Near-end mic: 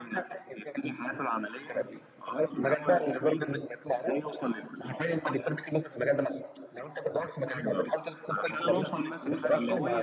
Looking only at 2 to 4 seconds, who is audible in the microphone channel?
echo only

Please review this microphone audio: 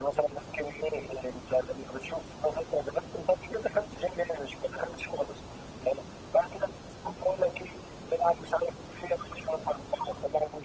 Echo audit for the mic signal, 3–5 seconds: echo only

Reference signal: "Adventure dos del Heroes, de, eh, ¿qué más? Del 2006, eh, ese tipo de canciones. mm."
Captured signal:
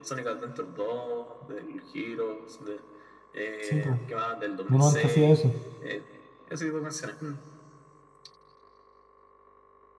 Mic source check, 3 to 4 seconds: both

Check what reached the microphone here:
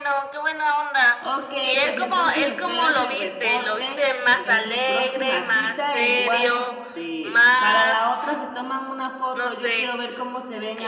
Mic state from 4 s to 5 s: both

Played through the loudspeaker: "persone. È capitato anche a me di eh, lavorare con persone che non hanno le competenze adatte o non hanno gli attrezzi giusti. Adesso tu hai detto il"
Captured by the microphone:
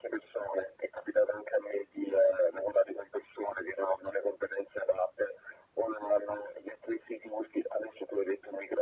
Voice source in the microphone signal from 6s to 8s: echo only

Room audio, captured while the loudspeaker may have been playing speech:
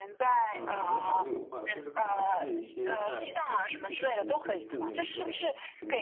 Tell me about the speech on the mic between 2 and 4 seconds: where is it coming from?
both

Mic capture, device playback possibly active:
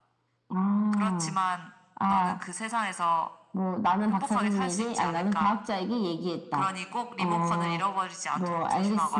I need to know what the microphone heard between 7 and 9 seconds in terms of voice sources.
echo only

